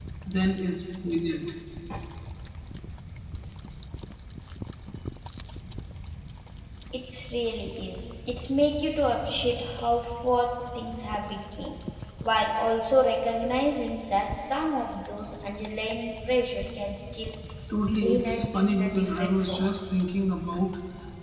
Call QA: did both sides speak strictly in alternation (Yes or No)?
No